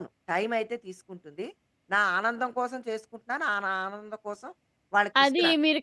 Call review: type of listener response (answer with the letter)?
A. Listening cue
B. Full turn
B